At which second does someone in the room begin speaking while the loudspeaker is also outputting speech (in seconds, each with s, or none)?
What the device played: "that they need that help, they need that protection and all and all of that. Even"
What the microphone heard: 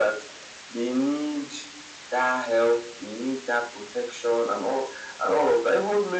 none